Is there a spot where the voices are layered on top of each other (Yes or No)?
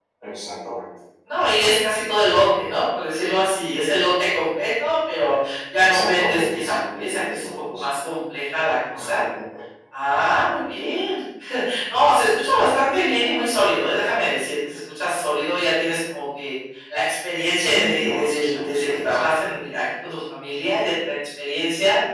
Yes